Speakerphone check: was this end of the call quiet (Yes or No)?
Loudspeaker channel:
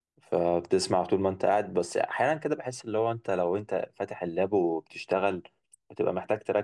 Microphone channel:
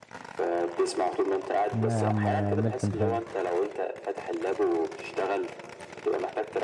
No